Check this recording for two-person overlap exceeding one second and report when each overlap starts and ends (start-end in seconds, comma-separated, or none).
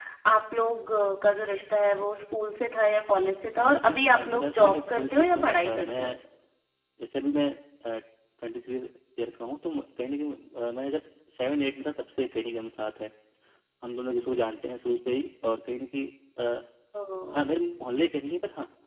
3.6-6.1